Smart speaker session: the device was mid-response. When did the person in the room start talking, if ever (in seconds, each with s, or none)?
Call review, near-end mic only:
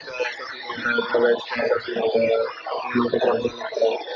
none